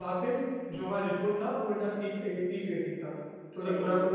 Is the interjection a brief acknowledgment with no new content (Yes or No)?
Yes